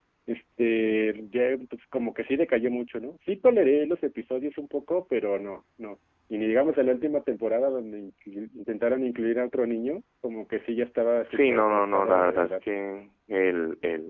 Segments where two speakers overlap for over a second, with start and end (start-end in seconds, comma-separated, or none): 11.3-12.6